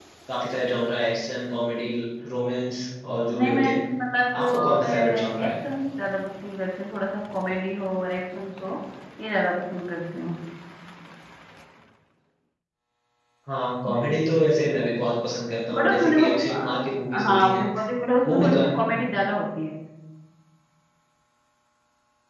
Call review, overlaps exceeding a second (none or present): present